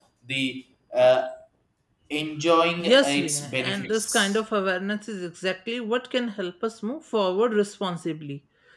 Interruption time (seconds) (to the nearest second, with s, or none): 3 s